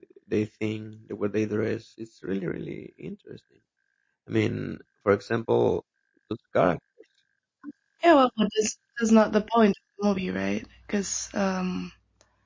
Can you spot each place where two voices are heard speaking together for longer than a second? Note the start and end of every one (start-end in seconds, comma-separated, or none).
none